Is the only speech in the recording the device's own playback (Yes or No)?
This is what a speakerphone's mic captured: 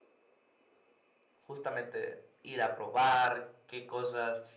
No